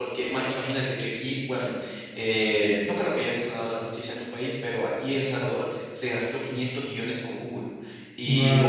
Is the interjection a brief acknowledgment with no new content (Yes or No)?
Yes